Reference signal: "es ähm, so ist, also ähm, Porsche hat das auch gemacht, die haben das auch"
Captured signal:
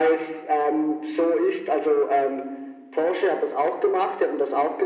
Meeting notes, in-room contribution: none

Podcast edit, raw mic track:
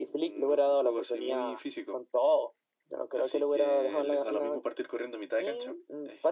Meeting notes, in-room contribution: none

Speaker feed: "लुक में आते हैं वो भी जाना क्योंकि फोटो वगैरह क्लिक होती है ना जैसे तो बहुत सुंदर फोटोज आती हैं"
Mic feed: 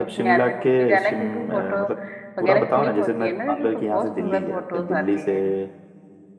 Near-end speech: present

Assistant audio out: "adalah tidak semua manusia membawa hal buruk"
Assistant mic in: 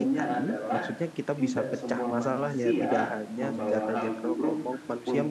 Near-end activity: present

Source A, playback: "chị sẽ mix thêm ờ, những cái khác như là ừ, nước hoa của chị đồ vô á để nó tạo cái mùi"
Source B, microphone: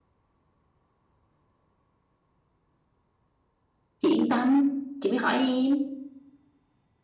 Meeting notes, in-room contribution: present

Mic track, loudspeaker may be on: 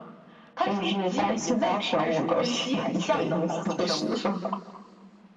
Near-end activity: none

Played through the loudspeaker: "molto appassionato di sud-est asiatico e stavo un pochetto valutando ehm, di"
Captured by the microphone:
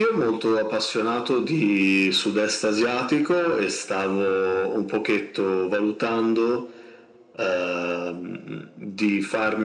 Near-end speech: none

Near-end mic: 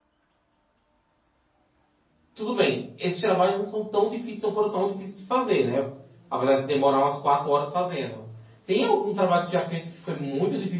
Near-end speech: present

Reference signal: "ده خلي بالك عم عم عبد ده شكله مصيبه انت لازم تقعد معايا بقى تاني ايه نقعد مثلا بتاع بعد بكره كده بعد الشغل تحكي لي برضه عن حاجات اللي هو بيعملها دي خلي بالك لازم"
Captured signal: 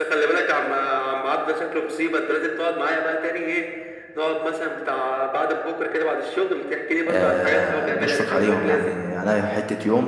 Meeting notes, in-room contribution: present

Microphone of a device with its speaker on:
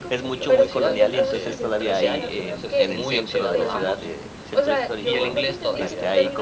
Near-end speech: present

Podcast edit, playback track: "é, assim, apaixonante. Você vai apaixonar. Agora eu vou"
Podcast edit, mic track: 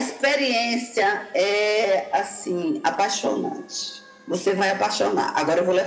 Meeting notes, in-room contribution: none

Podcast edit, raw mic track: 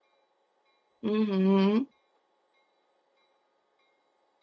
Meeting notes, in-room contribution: present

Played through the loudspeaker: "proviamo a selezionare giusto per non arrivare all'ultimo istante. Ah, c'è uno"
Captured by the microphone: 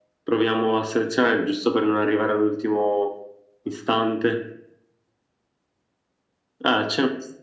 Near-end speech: none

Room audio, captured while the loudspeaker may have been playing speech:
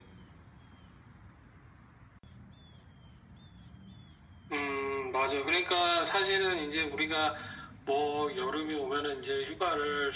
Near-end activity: none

